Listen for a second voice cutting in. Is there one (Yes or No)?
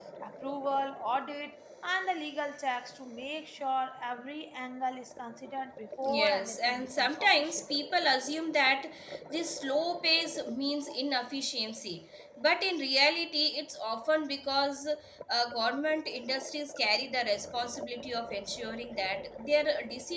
Yes